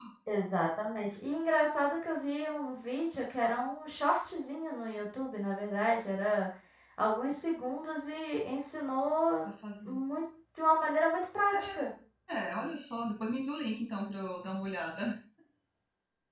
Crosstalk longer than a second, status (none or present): none